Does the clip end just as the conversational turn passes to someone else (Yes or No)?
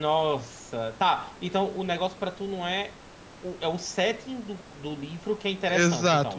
Yes